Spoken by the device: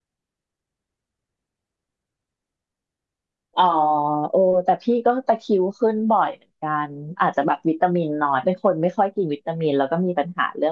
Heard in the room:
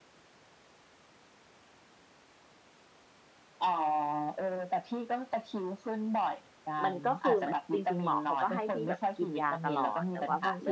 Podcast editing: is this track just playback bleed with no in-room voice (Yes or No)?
No